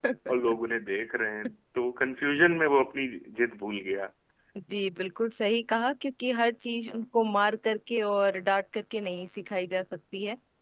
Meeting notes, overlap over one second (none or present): none